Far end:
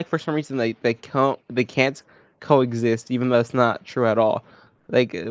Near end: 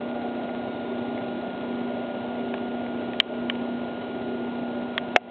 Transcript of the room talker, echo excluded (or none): none